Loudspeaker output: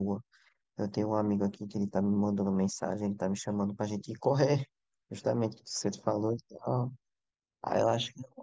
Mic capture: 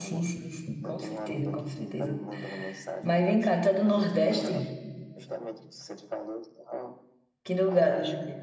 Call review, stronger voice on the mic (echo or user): user